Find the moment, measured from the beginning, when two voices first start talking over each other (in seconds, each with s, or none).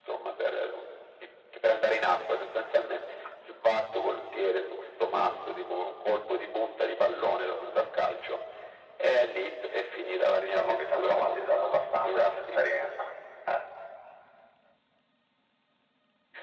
10.4 s